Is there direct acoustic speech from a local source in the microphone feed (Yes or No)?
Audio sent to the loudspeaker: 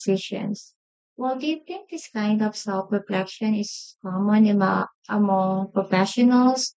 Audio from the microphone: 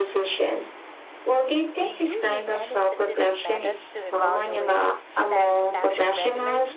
Yes